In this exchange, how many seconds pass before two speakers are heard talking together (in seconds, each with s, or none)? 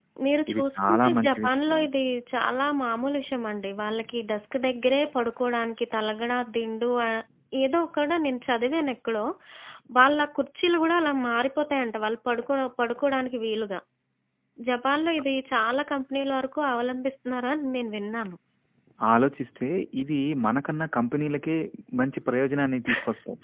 0.5 s